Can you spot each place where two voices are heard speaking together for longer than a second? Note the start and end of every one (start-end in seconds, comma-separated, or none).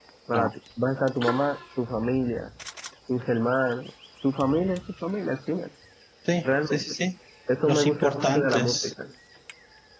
7.7-8.9